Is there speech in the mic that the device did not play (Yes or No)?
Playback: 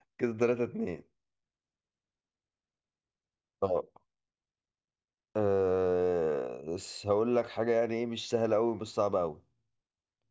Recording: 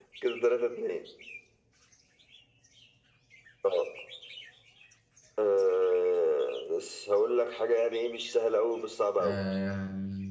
Yes